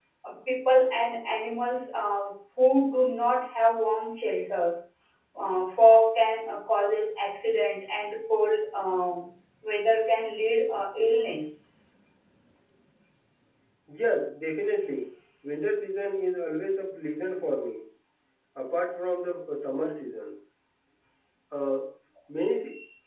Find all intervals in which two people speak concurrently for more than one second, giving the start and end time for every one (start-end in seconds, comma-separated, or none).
none